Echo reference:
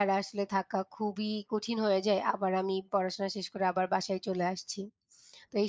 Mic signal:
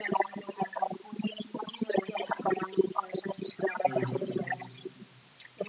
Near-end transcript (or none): হুম, হুম।